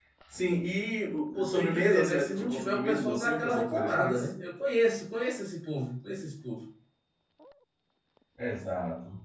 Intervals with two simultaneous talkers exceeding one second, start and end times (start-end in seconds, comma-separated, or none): 1.4-4.2